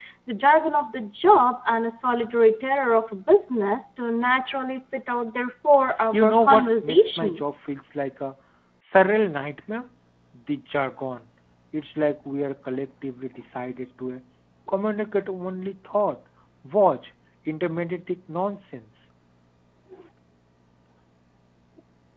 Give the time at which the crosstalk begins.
6.1 s

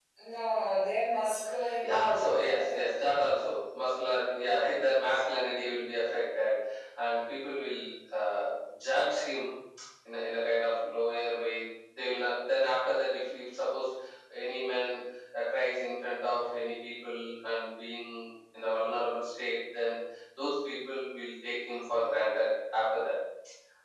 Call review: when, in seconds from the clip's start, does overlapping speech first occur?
1.6 s

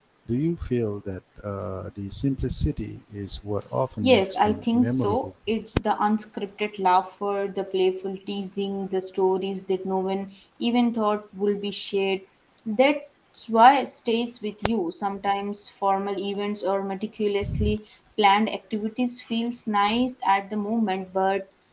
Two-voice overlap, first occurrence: 4.0 s

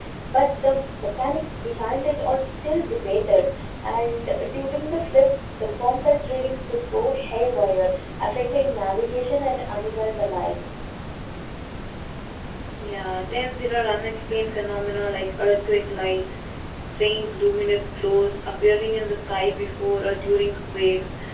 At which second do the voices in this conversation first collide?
none

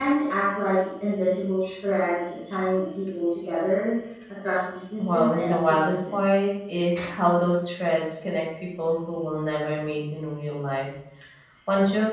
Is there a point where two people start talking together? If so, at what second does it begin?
5.0 s

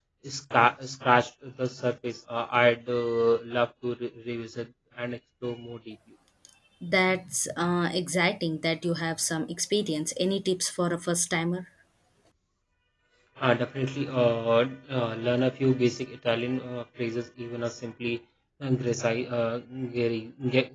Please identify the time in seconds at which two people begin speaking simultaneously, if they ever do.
none

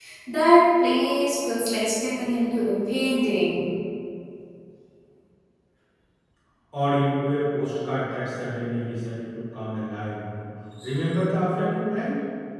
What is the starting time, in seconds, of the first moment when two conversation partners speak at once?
none

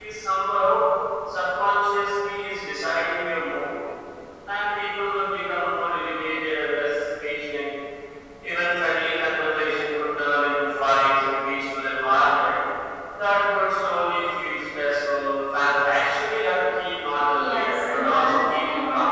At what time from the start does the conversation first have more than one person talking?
17.4 s

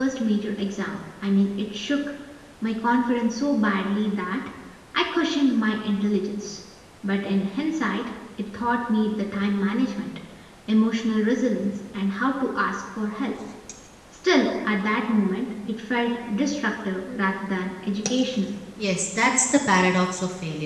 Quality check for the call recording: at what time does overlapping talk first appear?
none

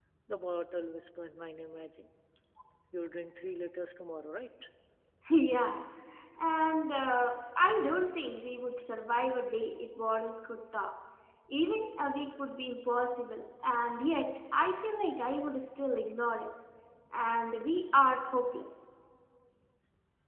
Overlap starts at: none

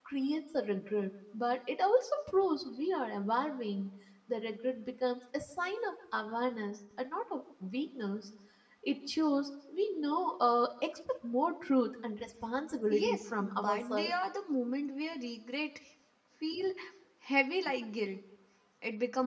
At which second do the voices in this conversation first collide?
12.9 s

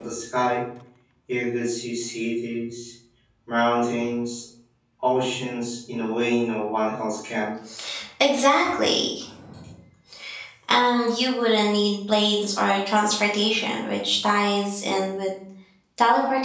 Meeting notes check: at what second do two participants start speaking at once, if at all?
none

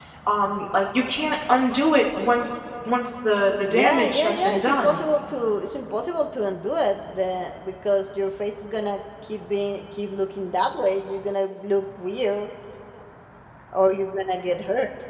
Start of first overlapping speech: 3.7 s

